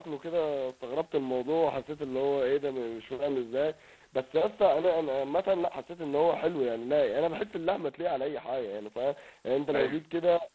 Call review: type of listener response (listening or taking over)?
listening